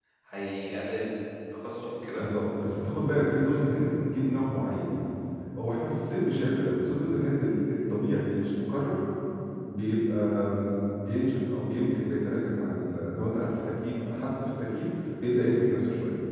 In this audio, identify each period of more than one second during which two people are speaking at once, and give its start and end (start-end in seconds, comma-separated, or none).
none